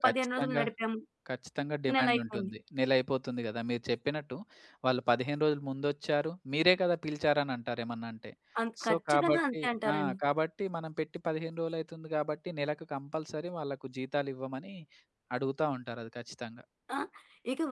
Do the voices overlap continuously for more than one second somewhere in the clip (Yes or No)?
Yes